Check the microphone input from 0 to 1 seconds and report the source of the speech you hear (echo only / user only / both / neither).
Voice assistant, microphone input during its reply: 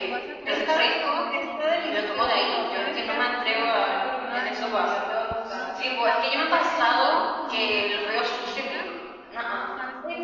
both